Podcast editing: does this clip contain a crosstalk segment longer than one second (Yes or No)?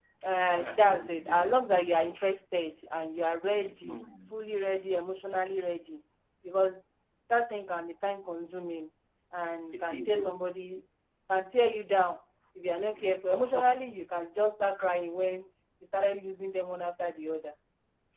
Yes